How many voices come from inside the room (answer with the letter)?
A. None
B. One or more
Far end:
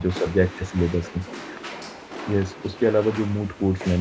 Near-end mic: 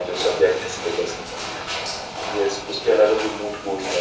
A